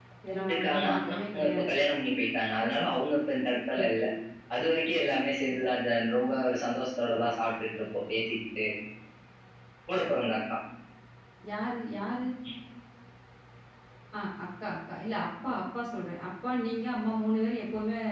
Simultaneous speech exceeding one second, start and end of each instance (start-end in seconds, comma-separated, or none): 0.5-1.7